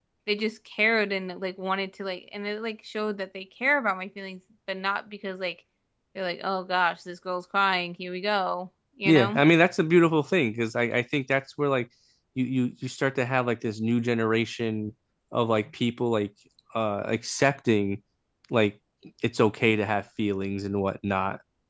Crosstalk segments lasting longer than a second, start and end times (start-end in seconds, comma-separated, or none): none